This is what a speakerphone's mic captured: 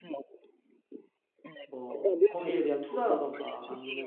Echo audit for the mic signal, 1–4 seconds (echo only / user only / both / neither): both